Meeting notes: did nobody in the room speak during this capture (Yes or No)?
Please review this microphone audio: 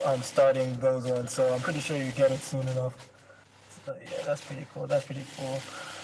Yes